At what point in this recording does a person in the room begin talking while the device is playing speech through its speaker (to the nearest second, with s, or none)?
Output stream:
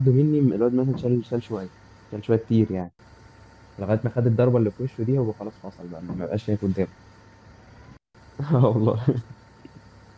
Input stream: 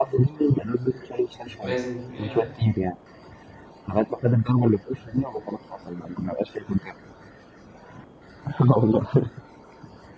2 s